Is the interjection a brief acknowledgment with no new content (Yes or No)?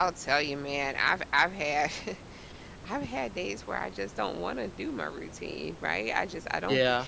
Yes